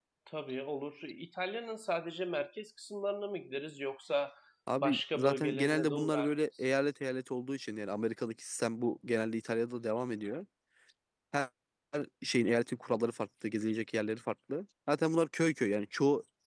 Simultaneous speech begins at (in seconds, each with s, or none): 4.8 s